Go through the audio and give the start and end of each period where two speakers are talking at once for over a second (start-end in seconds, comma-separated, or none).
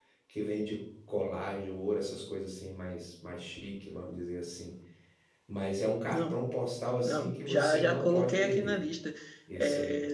7.0-8.8